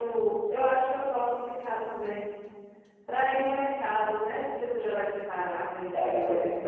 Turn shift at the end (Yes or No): Yes